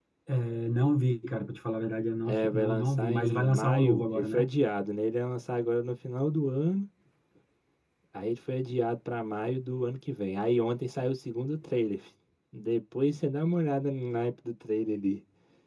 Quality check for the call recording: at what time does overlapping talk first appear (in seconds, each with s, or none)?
2.2 s